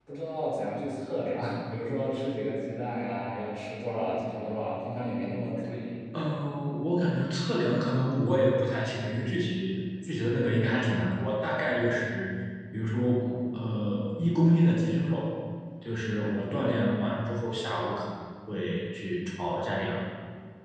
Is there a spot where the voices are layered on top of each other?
No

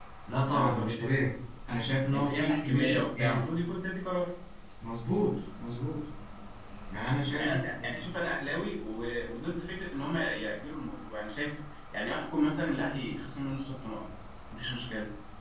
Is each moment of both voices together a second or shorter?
No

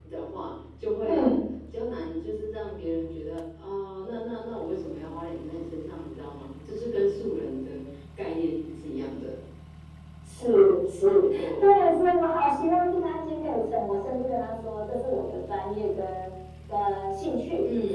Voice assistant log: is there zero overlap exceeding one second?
Yes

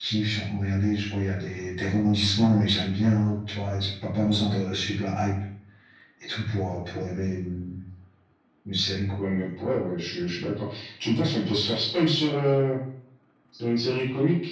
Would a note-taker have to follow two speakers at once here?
No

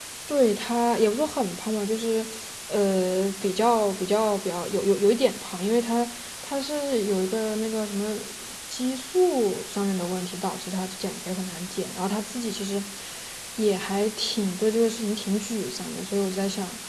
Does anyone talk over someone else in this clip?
No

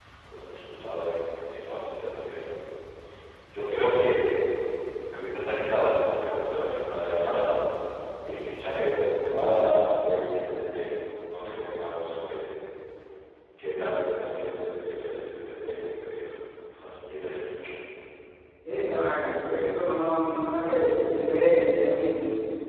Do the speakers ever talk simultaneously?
No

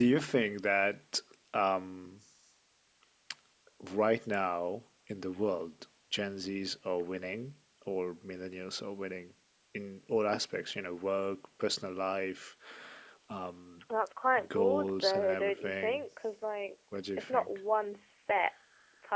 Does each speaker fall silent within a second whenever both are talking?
No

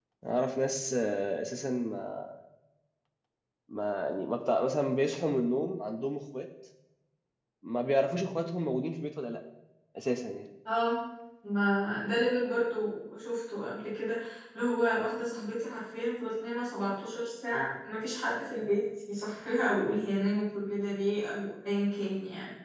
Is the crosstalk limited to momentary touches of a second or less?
Yes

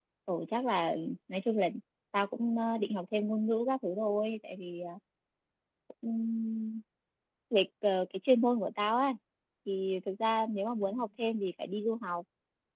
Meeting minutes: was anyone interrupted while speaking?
No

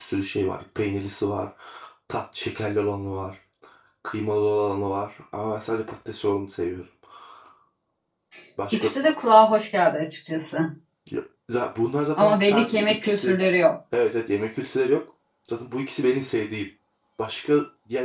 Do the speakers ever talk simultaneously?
Yes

